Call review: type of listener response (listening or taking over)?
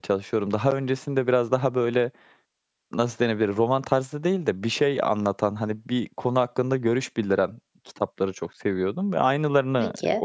listening